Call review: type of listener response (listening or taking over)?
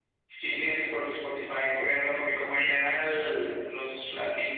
listening